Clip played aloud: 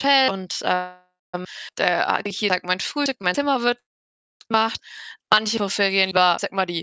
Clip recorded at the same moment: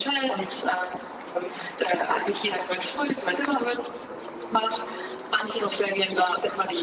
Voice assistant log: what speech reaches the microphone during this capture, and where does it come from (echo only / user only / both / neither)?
echo only